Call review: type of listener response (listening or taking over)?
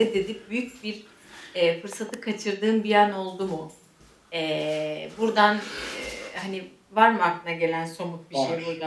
taking over